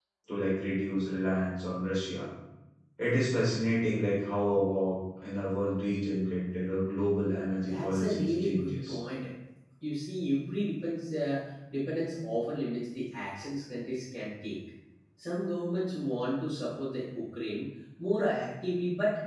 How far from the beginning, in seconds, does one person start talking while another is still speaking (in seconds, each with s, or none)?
7.6 s